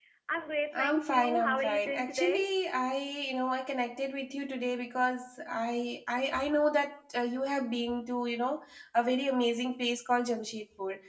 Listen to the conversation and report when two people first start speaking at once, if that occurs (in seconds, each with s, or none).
0.7 s